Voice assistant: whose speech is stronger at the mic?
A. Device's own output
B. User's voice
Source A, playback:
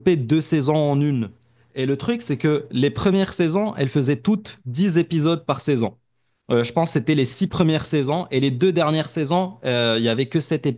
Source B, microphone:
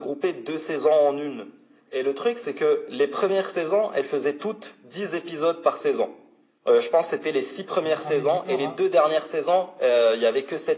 A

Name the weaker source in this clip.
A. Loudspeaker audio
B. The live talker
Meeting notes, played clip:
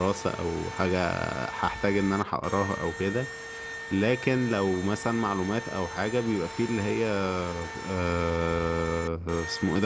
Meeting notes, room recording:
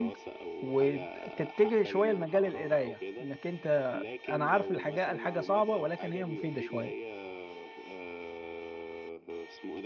A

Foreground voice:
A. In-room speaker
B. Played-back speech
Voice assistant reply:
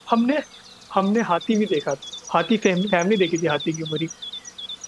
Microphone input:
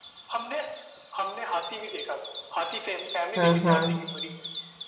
A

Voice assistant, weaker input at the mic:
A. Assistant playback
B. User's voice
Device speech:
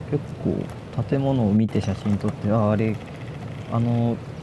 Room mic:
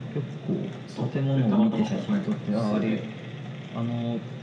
B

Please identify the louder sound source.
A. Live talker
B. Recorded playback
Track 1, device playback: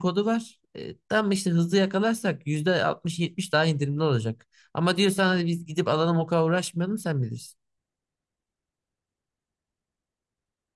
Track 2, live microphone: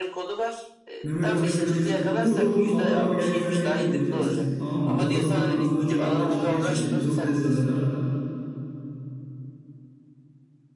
A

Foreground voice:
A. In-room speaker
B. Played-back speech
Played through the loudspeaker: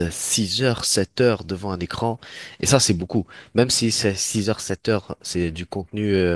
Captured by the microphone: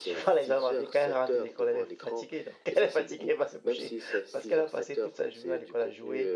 A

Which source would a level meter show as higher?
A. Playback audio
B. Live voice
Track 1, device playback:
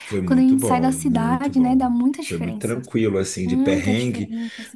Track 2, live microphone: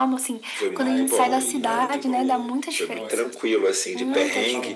A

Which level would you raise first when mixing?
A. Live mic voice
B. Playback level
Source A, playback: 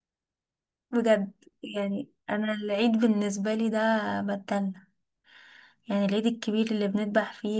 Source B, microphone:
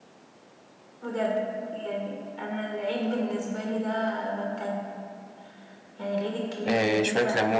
B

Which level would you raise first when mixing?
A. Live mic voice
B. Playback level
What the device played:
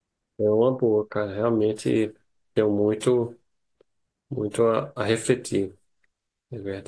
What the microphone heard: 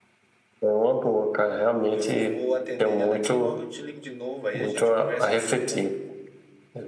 A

